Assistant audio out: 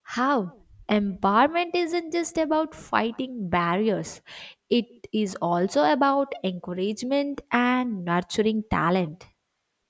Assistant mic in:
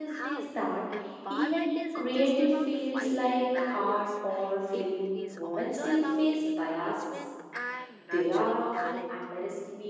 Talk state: both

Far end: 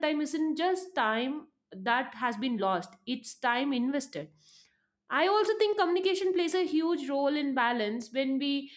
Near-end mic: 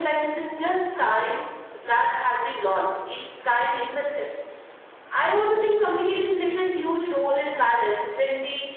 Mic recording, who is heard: echo only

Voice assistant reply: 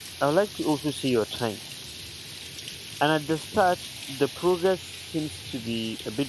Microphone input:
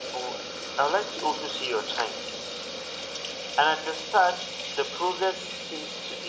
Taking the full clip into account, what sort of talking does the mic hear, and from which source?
echo only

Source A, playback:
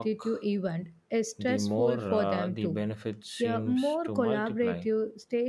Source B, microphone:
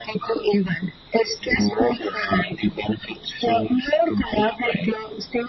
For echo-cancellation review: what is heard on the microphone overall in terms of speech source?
echo only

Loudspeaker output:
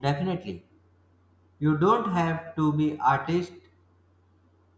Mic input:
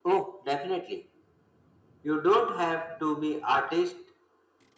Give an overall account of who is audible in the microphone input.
echo only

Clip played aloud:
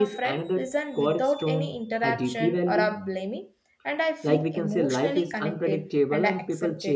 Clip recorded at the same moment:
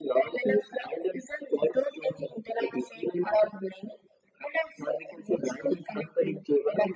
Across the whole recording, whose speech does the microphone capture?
echo only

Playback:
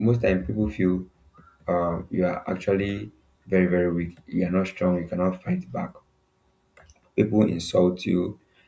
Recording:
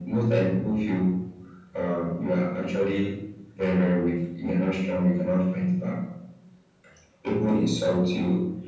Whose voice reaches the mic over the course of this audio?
echo only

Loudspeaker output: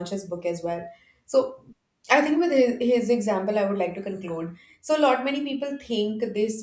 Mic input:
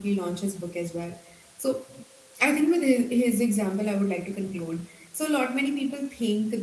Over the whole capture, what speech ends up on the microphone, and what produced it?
echo only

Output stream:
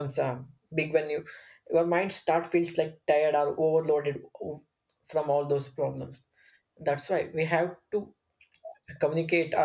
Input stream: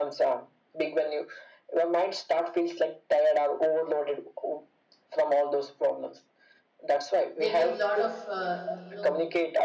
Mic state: both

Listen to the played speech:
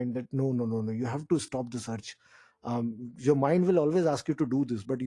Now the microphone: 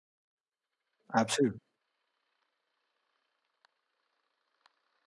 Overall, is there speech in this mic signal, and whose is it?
user only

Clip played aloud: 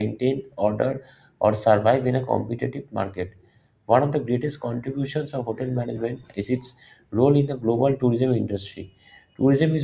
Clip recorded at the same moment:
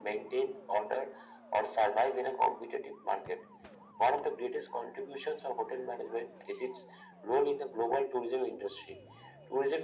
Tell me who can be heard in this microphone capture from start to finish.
echo only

